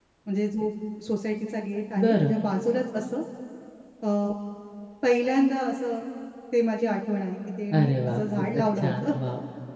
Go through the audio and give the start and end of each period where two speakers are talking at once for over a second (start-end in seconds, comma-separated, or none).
7.7-9.0